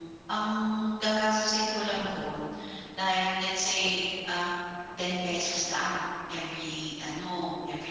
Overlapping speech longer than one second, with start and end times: none

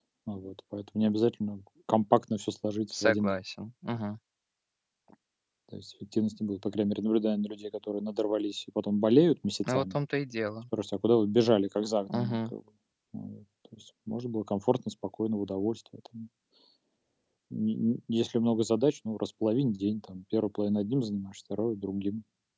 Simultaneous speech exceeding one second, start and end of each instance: none

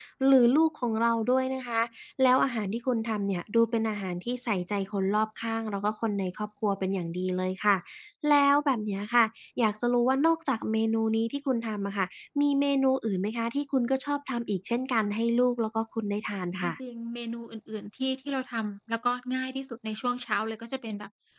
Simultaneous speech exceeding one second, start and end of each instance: none

